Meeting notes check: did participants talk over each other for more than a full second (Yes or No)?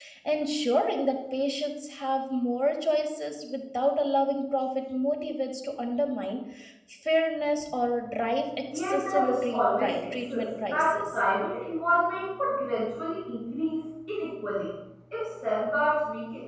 Yes